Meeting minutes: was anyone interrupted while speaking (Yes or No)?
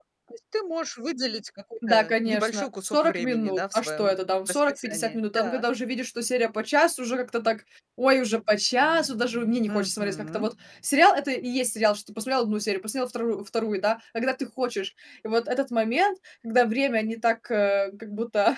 Yes